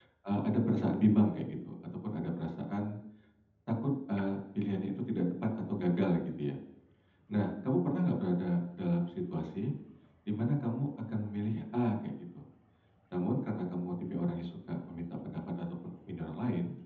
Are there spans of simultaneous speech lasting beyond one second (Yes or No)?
No